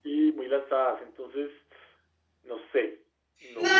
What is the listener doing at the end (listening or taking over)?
taking over